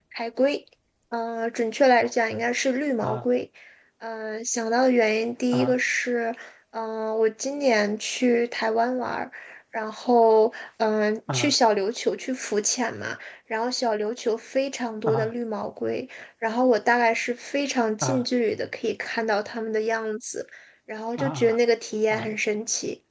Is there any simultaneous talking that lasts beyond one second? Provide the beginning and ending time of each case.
none

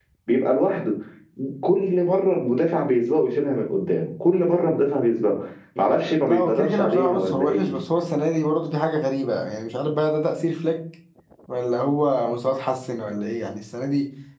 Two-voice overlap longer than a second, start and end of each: 6.2-7.7

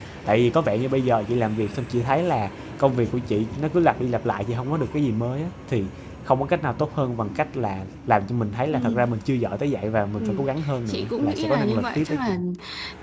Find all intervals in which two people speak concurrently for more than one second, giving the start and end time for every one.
10.9-12.3

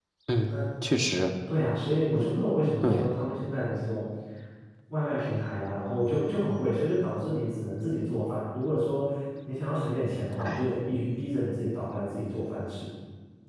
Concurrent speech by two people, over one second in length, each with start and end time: none

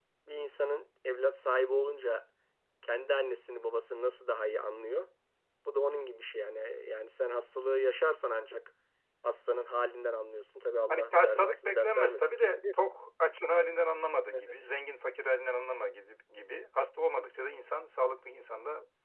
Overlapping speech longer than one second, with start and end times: 10.9-12.5

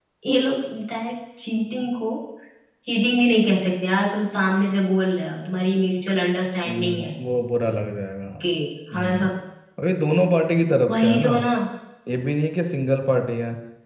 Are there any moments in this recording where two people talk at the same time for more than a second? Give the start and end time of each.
none

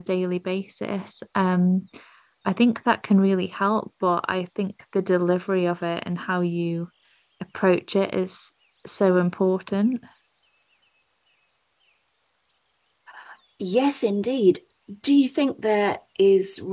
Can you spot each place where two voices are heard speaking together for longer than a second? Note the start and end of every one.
none

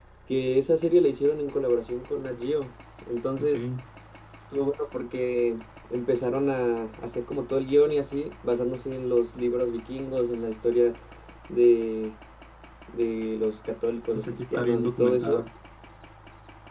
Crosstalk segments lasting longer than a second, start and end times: 14.1-15.4

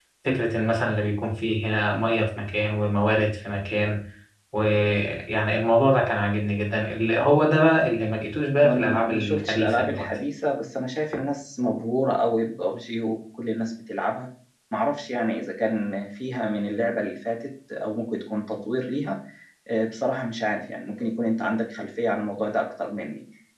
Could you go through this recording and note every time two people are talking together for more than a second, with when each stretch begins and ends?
8.6-10.1

